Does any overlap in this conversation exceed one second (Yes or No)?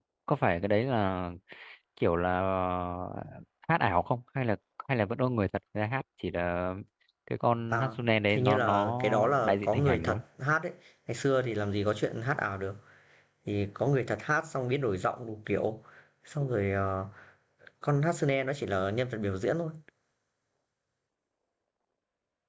Yes